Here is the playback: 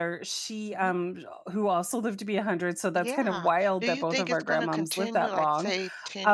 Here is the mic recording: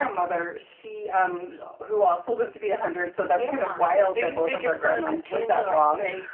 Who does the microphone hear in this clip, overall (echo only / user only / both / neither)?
echo only